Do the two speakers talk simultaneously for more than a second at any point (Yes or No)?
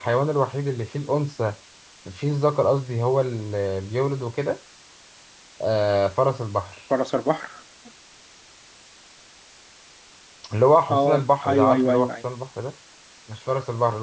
Yes